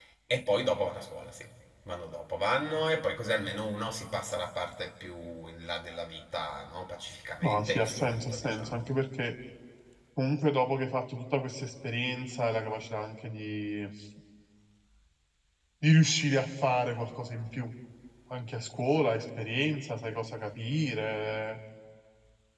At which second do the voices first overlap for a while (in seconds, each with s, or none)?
7.4 s